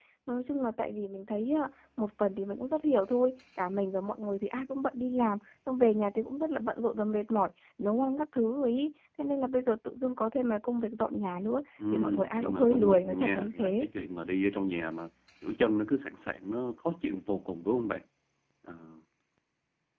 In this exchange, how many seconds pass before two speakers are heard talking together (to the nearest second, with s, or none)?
12 s